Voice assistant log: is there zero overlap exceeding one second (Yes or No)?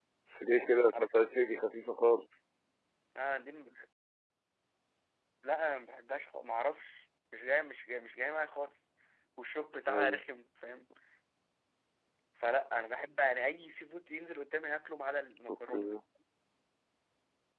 Yes